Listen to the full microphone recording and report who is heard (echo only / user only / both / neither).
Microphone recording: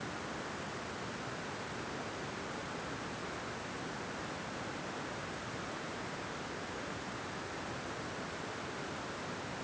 neither